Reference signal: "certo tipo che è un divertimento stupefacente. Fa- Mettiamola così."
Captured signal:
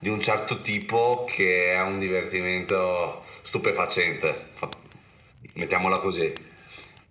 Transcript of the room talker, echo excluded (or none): none